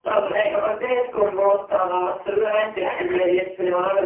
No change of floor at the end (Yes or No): Yes